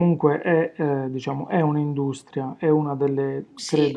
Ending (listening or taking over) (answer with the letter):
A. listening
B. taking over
A